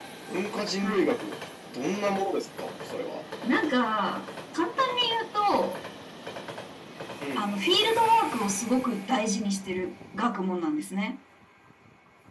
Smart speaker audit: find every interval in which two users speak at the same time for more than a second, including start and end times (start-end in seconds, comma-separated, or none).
none